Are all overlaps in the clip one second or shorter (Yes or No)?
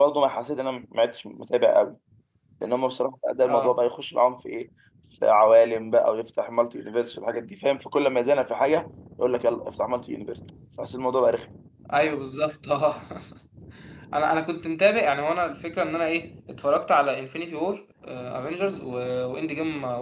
Yes